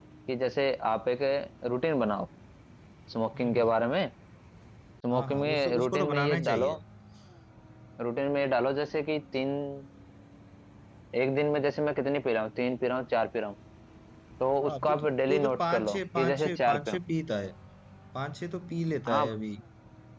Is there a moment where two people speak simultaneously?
Yes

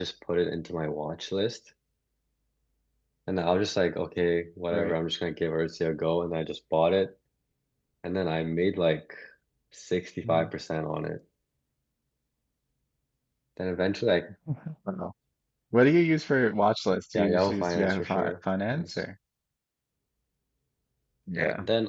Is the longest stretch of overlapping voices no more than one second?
No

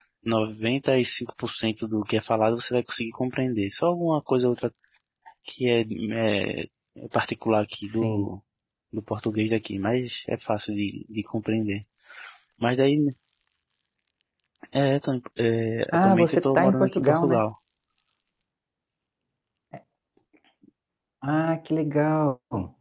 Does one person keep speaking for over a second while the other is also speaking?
Yes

